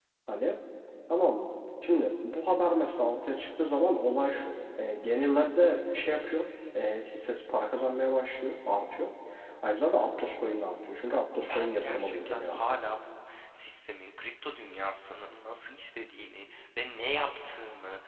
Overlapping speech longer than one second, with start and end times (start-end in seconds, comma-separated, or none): 11.5-12.8